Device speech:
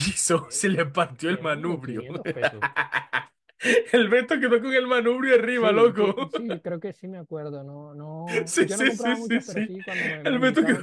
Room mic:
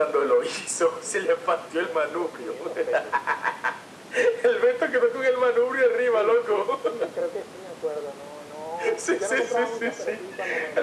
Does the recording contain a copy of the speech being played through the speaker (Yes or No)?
Yes